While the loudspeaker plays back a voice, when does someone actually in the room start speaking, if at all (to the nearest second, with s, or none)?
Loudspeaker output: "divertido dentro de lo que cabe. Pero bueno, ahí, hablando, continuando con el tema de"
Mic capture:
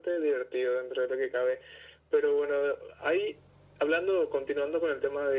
none